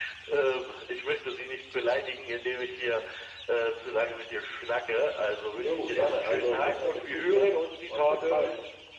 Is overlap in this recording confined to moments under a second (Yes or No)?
No